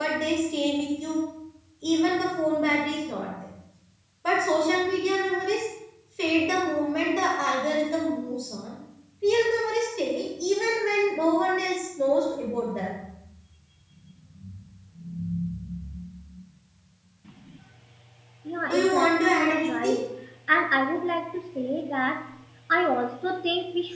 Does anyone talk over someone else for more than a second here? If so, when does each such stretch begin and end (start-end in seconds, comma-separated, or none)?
18.6-20.0